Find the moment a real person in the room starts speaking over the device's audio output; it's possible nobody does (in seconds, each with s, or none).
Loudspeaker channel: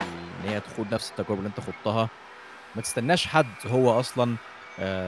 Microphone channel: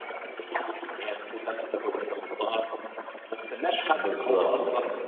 3.9 s